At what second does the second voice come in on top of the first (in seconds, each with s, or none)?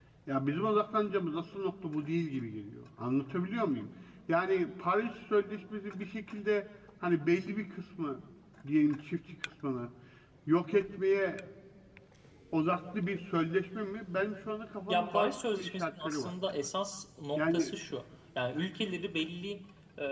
14.9 s